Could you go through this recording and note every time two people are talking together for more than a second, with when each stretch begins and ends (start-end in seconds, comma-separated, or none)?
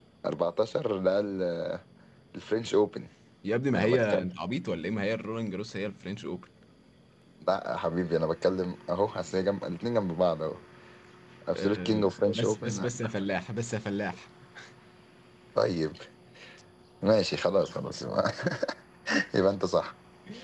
11.6-12.9